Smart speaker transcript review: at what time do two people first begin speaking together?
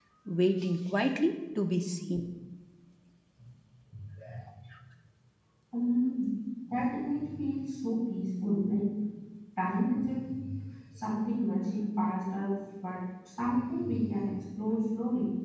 none

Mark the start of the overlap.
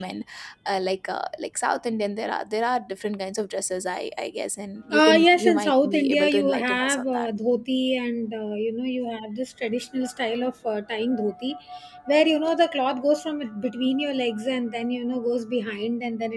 4.9 s

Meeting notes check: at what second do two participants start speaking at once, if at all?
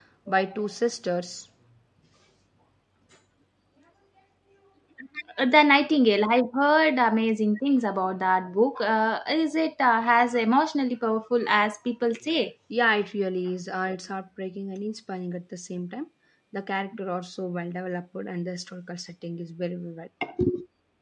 none

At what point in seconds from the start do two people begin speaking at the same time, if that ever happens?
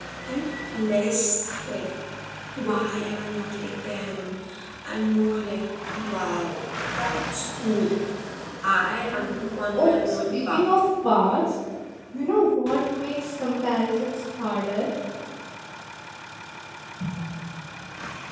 9.1 s

